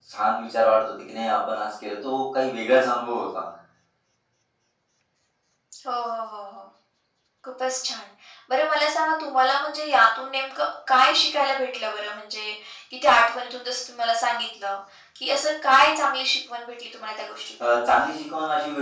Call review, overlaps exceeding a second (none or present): none